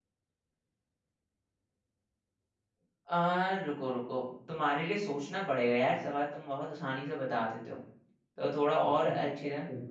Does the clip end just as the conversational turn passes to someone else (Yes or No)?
Yes